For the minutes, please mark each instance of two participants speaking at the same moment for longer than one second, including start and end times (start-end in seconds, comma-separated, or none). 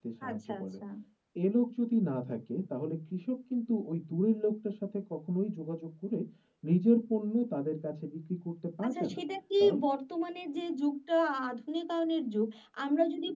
none